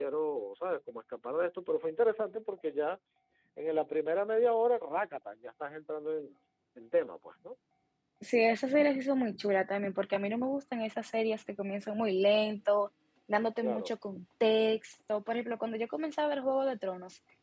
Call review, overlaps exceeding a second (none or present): none